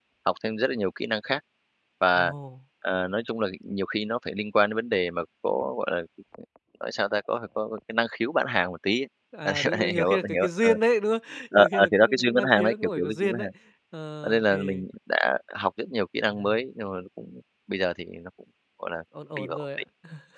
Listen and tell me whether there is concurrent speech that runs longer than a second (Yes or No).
Yes